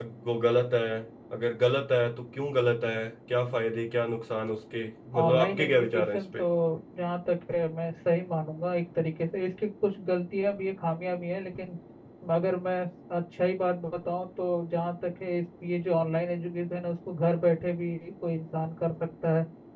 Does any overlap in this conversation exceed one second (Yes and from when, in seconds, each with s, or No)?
Yes, from 5.1 s